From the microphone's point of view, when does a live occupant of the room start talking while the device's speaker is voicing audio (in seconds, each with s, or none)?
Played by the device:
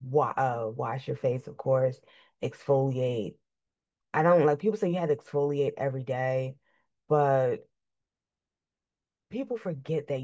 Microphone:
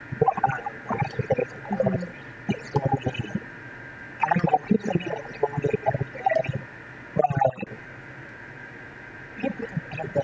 1.7 s